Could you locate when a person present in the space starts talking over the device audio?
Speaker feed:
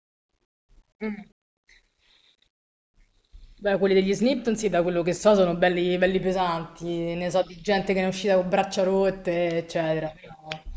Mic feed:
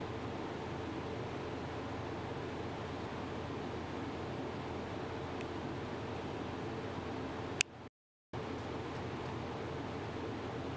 none

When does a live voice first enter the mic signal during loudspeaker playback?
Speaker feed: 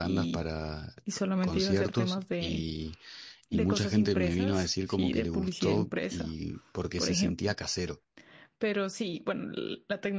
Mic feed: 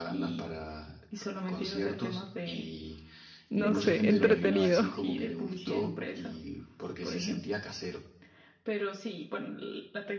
3.5 s

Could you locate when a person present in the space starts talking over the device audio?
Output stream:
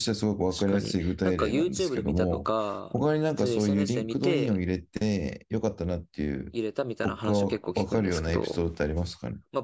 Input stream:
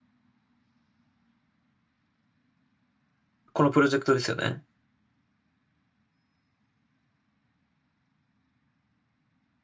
3.5 s

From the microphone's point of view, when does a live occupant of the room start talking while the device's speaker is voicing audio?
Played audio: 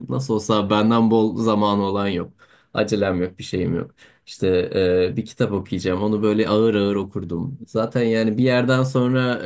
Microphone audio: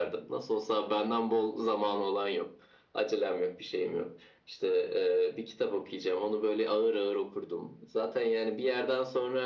none

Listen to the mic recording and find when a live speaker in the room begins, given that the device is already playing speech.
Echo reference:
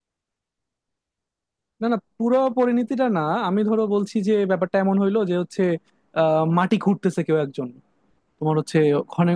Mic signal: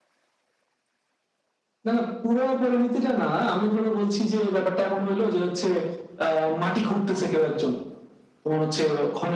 none

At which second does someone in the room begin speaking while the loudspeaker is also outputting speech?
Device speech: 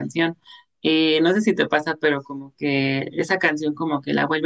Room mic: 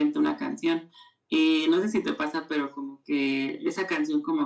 none

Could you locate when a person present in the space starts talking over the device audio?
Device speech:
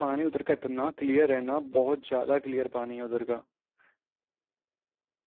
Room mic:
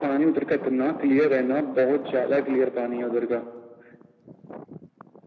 none

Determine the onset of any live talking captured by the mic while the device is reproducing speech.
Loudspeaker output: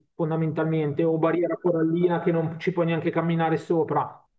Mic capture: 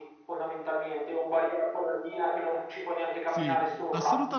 3.2 s

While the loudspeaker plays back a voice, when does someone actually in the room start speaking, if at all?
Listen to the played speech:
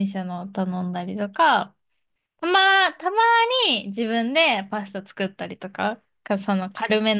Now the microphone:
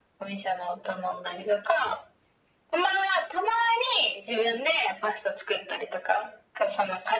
none

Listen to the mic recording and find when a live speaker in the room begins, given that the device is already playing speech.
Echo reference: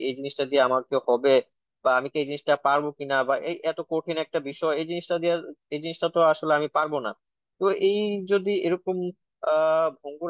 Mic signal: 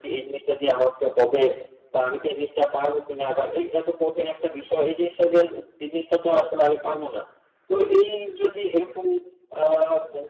none

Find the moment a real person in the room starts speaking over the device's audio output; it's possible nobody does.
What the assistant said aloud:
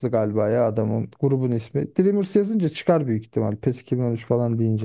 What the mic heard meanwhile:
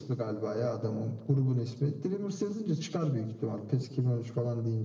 none

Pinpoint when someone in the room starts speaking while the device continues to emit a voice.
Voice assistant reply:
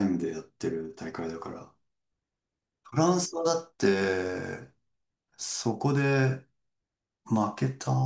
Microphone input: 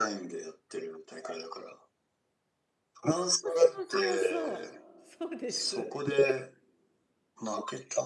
3.4 s

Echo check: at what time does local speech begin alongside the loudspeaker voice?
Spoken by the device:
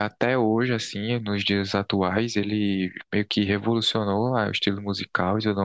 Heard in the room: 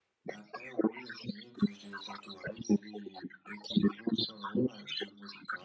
none

